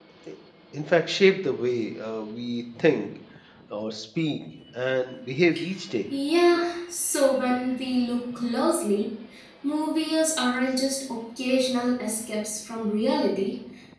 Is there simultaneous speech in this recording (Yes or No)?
No